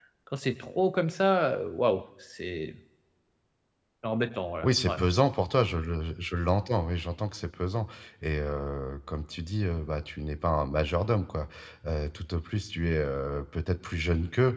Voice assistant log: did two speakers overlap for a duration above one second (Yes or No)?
No